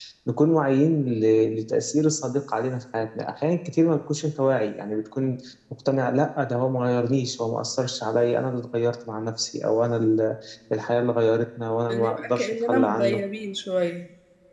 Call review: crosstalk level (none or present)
present